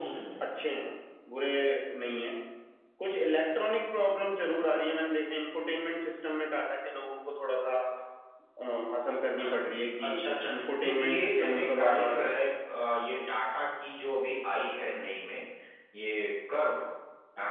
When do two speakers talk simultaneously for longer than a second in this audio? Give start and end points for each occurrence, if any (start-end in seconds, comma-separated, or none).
10.6-12.2